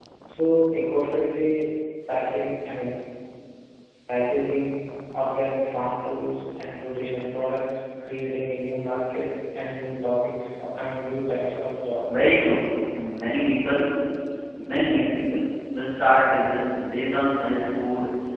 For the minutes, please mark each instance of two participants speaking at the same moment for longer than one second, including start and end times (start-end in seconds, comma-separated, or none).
none